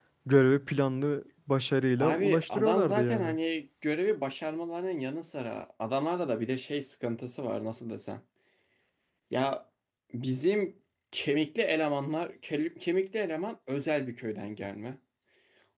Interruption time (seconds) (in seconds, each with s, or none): 2.0 s